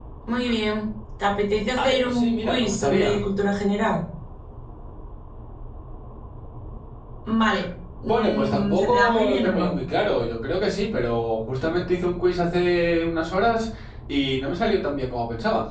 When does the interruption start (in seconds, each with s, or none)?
1.8 s